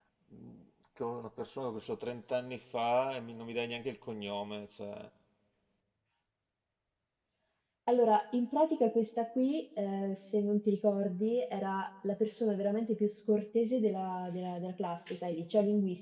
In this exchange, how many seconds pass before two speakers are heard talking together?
none

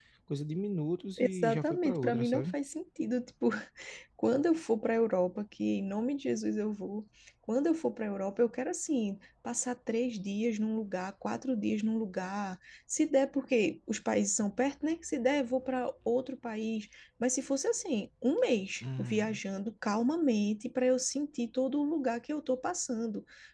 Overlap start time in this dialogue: 1.2 s

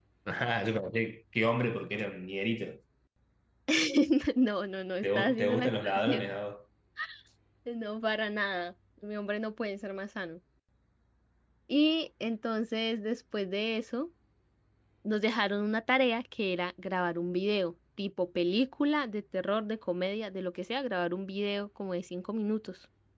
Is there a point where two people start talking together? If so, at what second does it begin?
5.0 s

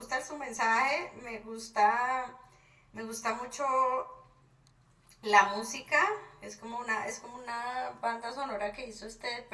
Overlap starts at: none

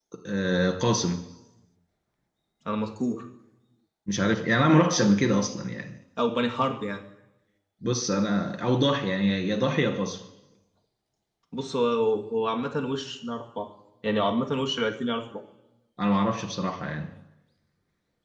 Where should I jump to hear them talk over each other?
none

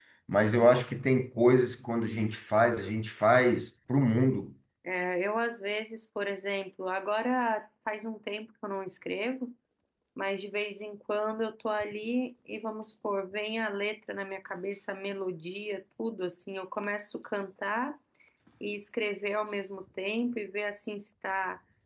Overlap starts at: none

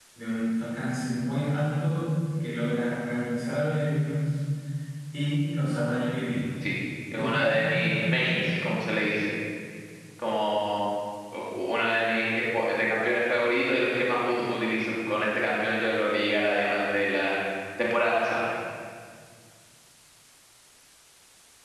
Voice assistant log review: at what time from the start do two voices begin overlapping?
7.2 s

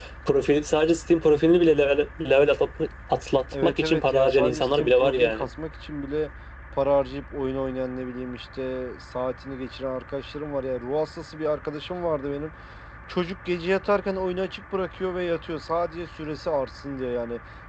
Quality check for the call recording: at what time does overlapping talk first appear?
3.5 s

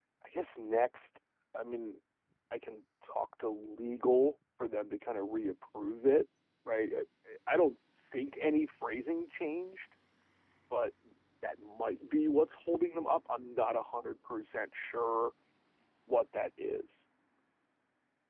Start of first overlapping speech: none

